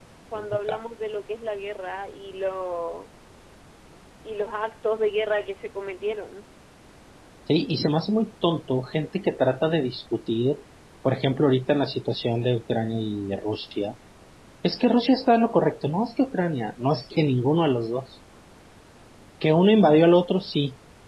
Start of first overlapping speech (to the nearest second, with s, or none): none